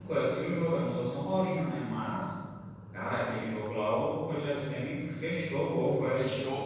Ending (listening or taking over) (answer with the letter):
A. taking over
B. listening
A